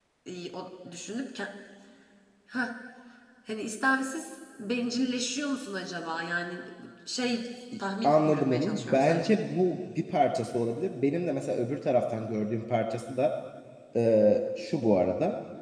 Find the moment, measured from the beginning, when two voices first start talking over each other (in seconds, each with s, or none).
8.0 s